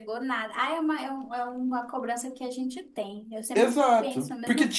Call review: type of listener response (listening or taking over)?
taking over